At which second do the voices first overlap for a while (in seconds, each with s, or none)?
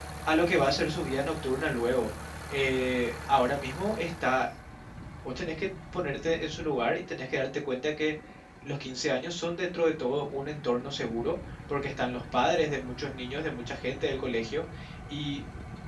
none